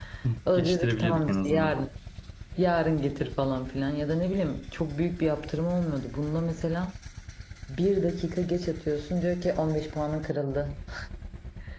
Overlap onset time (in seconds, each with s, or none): 0.5 s